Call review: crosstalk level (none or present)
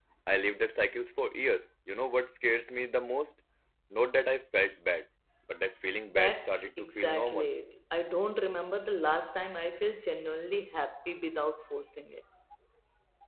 present